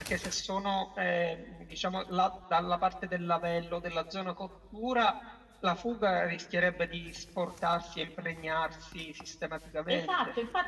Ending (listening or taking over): taking over